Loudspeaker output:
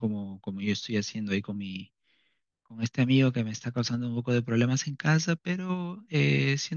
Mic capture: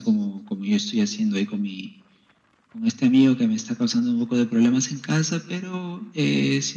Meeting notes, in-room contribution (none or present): none